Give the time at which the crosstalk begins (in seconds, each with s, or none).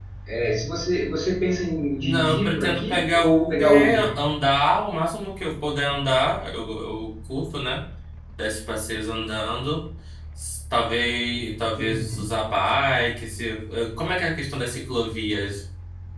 2.0 s